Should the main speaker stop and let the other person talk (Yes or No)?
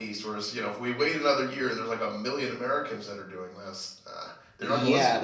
Yes